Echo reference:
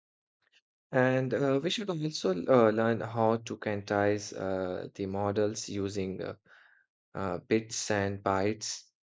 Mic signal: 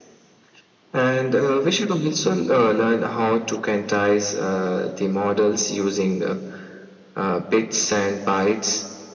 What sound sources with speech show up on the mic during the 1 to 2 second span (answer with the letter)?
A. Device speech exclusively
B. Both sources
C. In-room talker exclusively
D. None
A